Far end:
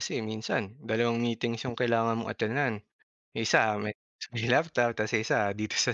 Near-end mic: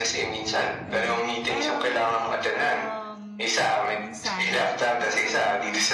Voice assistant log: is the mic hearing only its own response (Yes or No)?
No